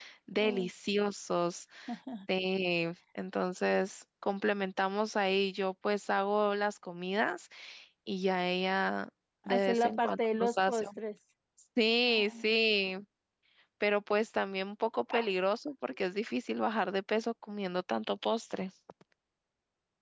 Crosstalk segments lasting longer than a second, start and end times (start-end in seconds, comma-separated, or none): 9.5-11.0